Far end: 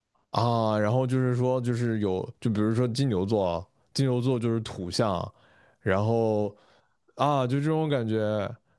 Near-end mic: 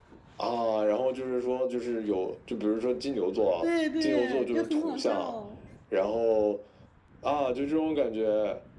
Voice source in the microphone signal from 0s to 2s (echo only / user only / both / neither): echo only